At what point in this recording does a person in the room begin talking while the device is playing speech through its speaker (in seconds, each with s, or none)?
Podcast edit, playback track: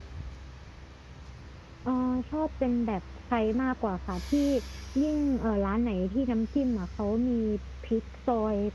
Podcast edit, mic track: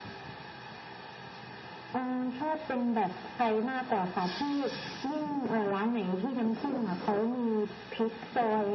none